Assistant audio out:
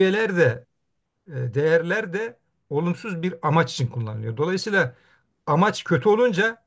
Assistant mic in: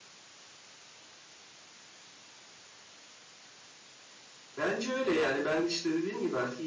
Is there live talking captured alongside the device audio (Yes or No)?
Yes